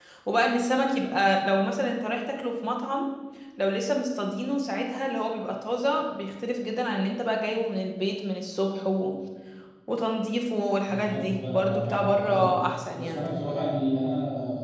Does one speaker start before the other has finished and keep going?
Yes, from 10.9 s

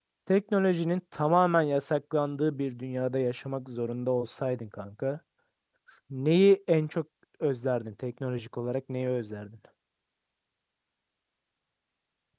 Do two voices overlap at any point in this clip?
No

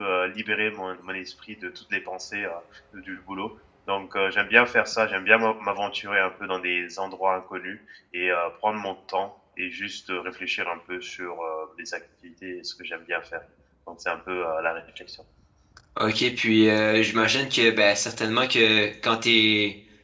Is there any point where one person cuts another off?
No

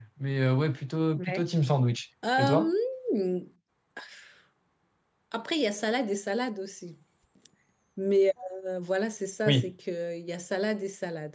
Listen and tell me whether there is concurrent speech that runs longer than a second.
No

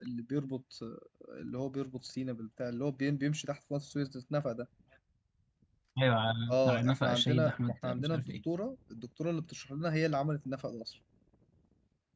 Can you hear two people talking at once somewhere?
Yes, from 6.5 s

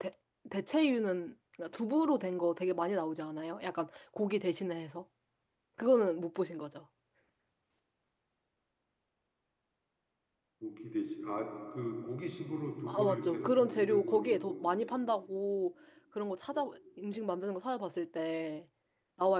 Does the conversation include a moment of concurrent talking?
Yes, from 12.9 s

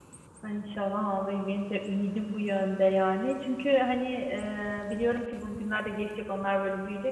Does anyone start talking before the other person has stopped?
No

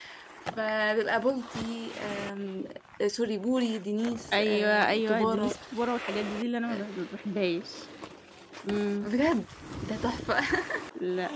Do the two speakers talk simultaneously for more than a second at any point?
Yes, from 4.3 s

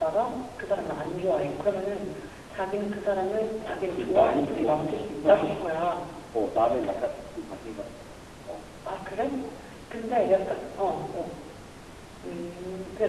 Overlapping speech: Yes, from 3.6 s

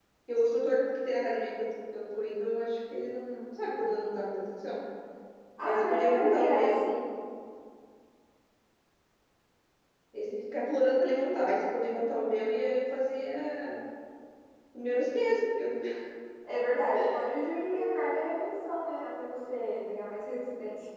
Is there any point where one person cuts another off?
Yes, from 5.6 s

